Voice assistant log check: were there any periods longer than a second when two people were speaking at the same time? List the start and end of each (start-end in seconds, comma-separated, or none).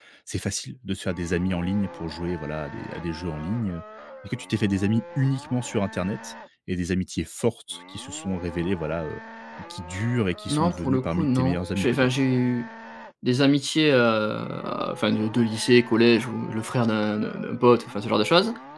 10.5-12.1